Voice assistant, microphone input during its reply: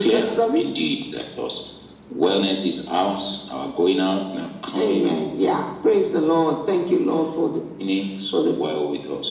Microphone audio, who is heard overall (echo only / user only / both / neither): echo only